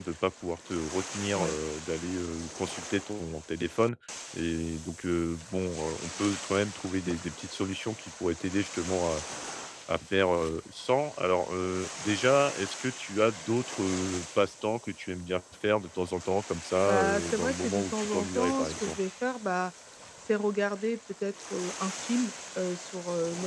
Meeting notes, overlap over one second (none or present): present